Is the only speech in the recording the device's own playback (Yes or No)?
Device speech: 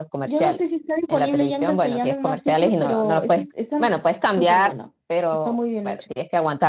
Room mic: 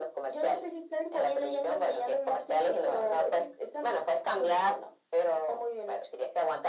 Yes